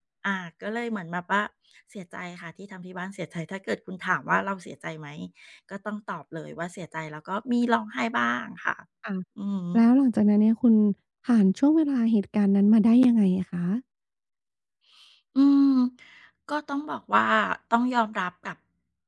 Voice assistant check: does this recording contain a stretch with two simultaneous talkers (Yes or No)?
No